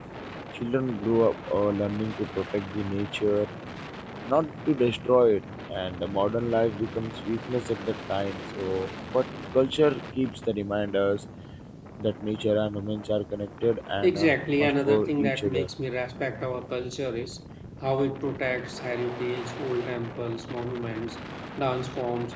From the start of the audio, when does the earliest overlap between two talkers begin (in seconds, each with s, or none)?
14.0 s